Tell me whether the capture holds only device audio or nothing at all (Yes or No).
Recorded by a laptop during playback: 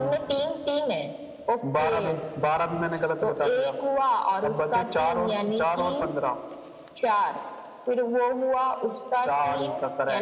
Yes